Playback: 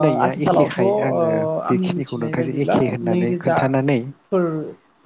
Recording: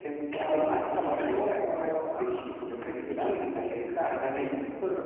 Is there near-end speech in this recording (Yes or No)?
No